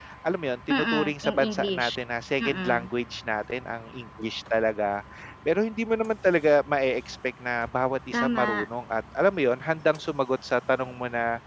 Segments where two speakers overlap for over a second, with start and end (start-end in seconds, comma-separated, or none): 0.7-1.9